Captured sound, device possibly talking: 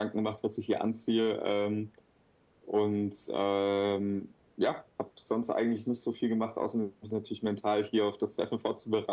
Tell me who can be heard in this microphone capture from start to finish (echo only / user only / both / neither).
echo only